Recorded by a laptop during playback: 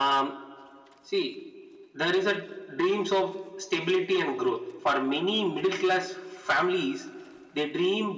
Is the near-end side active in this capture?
No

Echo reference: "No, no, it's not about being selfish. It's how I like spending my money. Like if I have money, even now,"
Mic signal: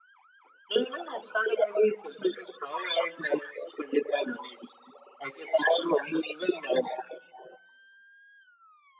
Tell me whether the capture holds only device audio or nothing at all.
Yes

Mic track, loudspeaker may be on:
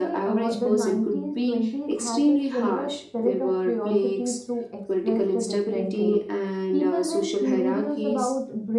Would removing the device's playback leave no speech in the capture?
No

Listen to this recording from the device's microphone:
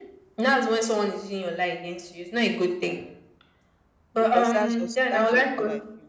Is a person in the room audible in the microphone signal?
Yes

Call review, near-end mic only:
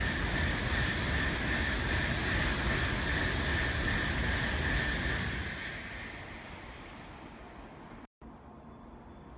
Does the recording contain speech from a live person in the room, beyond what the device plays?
No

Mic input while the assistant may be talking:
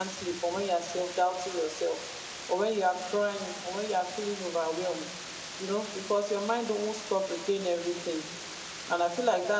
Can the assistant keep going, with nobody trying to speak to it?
No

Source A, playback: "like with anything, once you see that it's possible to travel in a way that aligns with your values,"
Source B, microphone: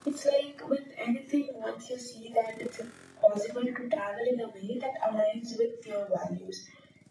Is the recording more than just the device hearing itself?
No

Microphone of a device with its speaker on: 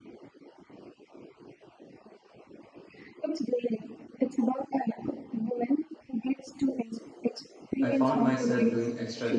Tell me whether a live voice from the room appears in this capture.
Yes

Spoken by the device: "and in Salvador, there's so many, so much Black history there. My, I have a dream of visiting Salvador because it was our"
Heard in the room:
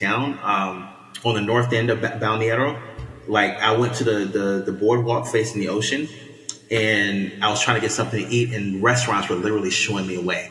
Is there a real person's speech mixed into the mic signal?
Yes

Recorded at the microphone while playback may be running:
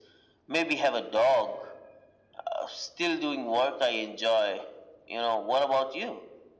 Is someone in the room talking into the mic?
No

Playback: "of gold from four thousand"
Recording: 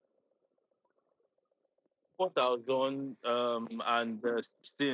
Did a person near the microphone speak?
Yes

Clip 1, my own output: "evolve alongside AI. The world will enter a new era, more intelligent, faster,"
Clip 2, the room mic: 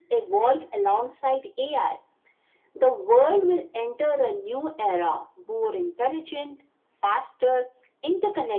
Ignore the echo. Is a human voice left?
No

